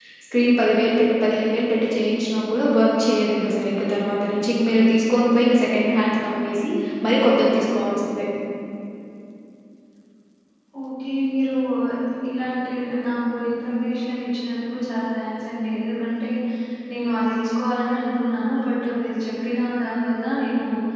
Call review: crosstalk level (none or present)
none